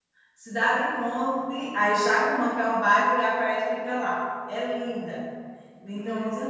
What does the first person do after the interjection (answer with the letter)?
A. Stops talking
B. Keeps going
A